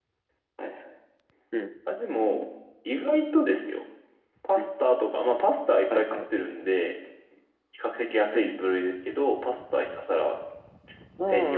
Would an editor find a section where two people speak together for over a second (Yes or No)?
No